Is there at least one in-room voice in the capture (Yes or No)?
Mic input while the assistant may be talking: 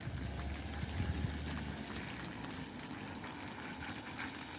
No